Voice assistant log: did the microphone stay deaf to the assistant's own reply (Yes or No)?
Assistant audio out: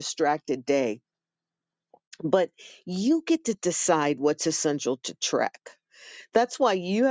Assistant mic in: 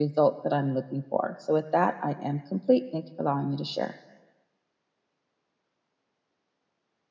Yes